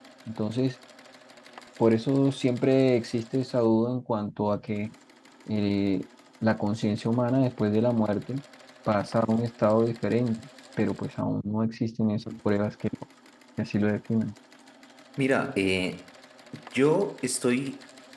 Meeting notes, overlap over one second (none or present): none